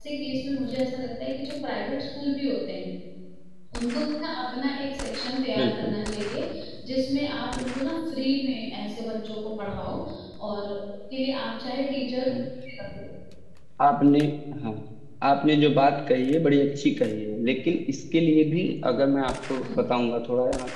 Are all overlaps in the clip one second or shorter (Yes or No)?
Yes